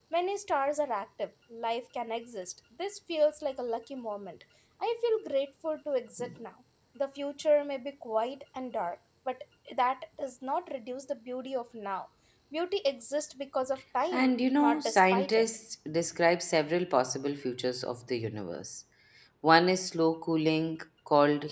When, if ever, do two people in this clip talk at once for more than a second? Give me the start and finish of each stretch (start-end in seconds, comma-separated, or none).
14.1-15.4